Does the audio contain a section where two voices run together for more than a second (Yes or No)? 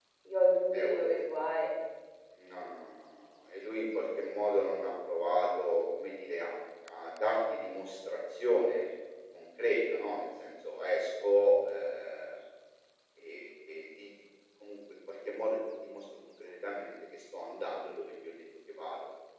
No